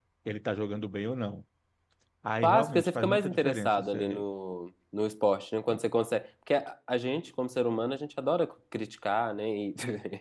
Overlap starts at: 2.4 s

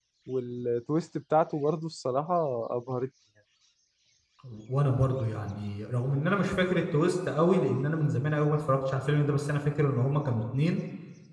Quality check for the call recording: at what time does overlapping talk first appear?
none

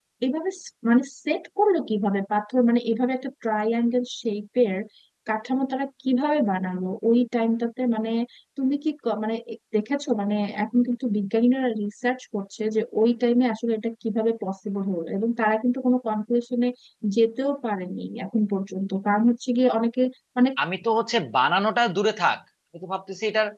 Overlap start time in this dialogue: none

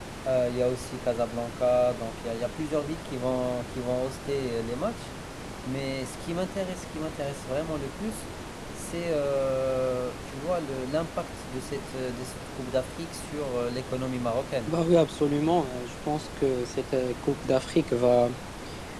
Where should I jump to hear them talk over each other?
none

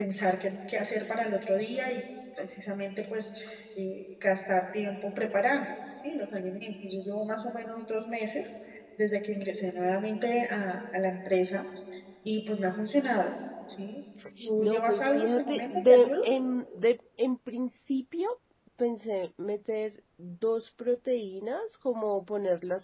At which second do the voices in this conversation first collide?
14.6 s

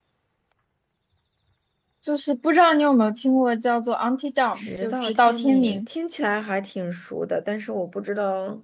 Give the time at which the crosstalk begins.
4.5 s

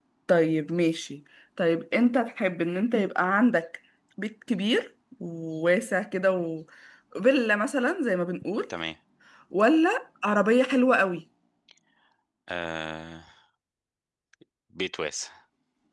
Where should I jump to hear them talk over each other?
none

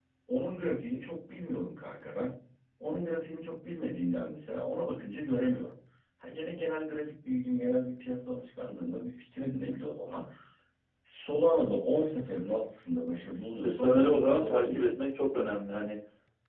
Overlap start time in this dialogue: 13.6 s

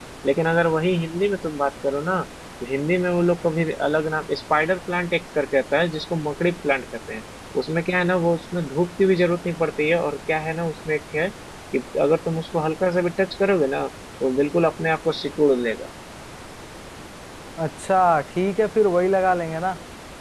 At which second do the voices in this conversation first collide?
none

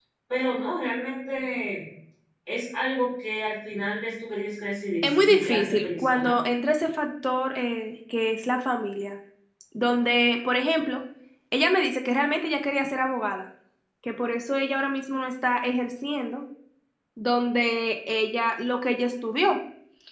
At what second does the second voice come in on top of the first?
5.0 s

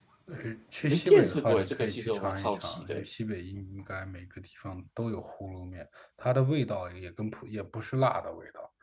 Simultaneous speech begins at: 0.9 s

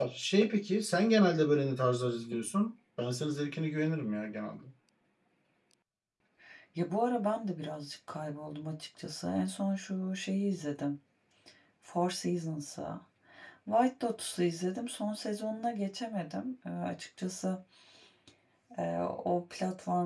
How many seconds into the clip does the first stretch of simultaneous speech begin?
none

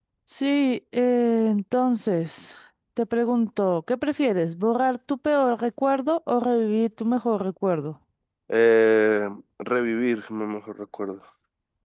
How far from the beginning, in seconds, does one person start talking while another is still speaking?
none

